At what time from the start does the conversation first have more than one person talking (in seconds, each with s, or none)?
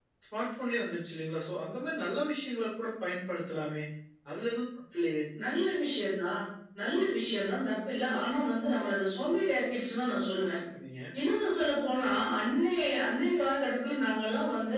none